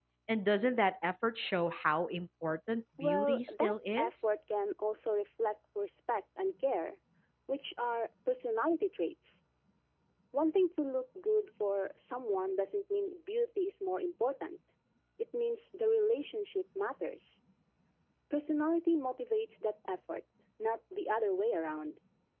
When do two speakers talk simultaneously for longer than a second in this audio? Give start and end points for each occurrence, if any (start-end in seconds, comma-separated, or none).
3.0-4.3